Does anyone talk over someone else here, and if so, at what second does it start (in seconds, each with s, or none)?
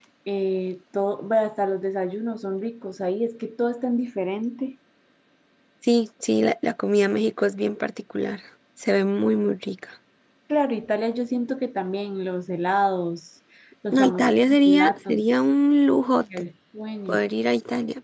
13.9 s